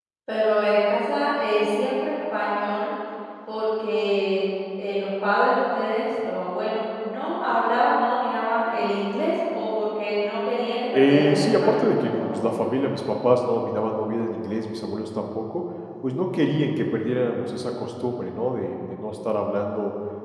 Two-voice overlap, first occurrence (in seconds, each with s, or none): 10.9 s